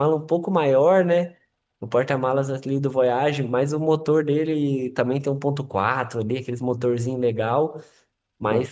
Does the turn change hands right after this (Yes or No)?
No